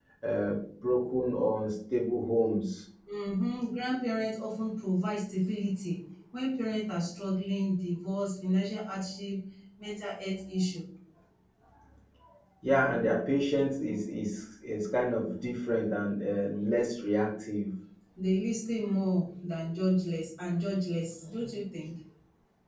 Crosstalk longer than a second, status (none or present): none